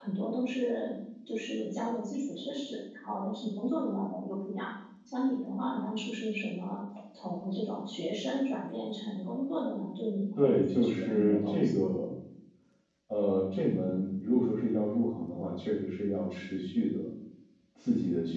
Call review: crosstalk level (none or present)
present